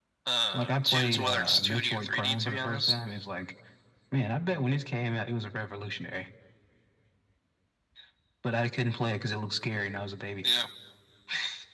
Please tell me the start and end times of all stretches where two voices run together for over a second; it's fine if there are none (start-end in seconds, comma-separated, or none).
0.5-3.0